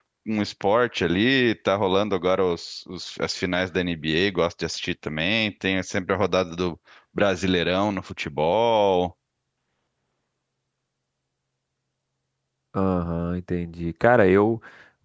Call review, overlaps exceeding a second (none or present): none